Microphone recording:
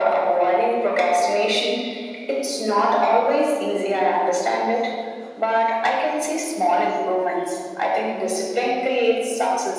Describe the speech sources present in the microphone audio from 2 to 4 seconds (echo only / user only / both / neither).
echo only